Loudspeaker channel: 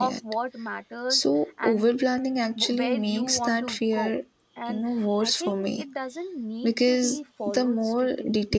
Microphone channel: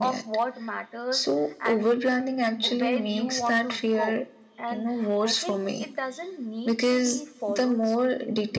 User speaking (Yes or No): No